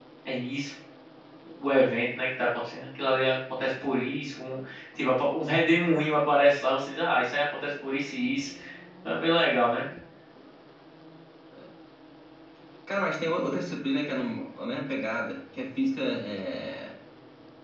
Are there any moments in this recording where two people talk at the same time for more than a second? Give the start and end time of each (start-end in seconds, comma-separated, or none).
none